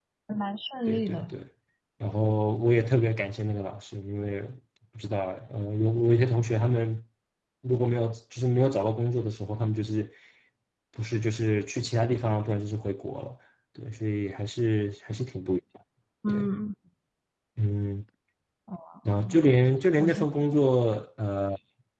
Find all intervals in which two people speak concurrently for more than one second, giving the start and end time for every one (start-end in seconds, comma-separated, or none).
none